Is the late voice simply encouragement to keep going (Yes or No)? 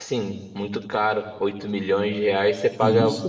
Yes